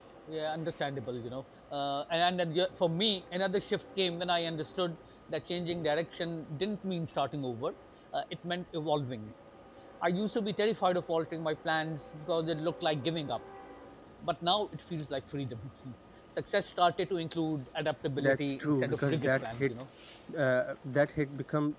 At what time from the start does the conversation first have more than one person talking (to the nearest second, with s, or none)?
18 s